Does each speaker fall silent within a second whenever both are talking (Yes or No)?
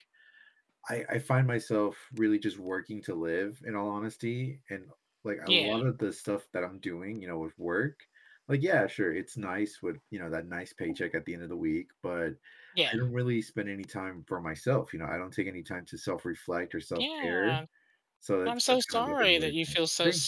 No